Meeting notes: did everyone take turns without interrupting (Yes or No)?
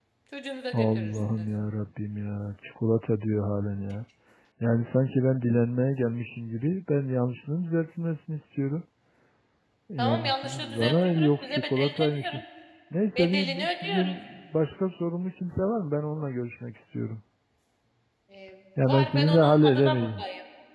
No